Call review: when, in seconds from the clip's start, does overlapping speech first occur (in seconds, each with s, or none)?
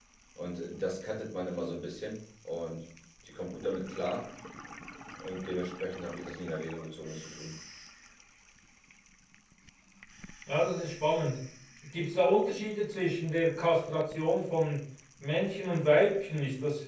none